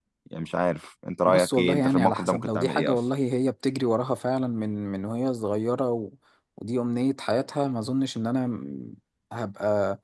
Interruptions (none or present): present